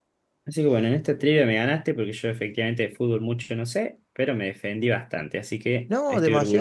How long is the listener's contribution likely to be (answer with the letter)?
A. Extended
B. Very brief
A